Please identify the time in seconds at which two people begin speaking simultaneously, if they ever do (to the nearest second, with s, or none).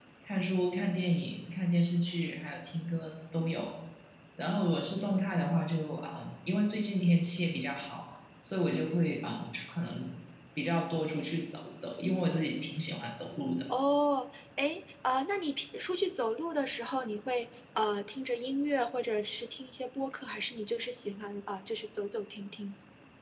none